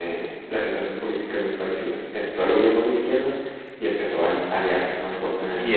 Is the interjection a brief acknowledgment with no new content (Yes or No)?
No